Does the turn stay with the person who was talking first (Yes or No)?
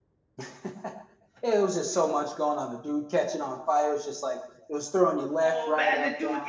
No